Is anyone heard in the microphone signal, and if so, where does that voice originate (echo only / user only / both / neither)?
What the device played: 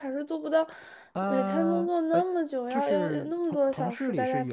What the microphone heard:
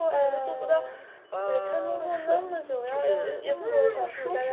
both